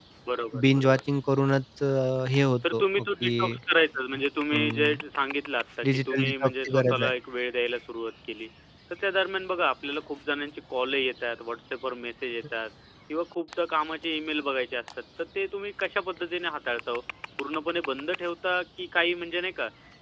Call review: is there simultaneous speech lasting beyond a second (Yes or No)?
Yes